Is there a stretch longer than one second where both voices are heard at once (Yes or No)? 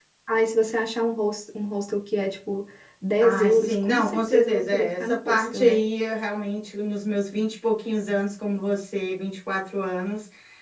Yes